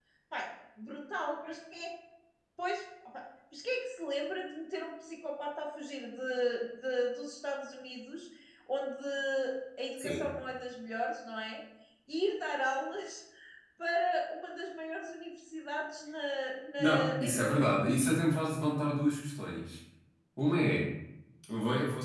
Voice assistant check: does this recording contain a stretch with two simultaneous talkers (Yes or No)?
Yes